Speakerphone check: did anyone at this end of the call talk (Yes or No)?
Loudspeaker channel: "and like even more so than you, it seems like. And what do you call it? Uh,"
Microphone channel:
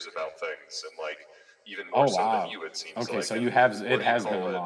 Yes